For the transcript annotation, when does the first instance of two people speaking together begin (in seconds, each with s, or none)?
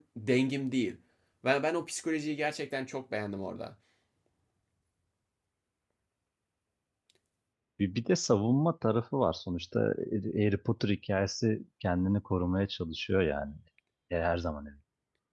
none